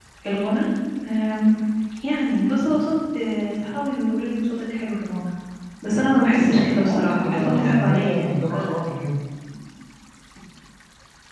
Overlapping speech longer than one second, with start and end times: 6.8-8.8

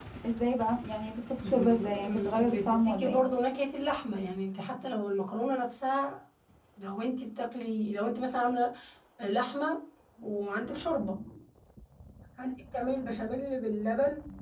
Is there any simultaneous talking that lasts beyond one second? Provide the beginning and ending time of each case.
1.5-3.2

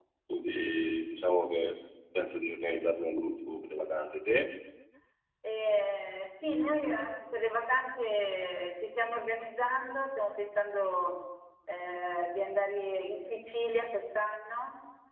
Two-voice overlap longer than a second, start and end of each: none

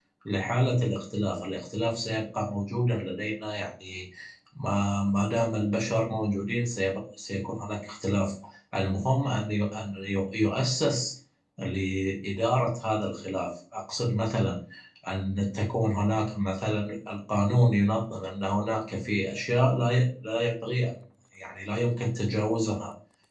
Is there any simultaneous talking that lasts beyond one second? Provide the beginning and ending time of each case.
none

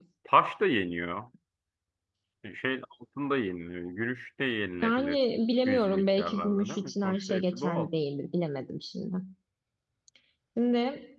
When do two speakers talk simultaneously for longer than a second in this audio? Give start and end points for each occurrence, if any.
5.6-7.9

